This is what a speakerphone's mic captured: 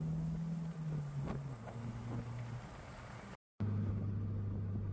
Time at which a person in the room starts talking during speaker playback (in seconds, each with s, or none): none